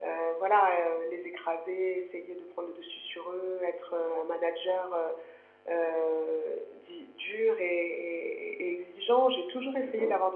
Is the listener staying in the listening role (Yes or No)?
Yes